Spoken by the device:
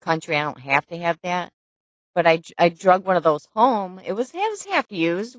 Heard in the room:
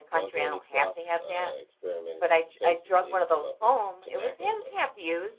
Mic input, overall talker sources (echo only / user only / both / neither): both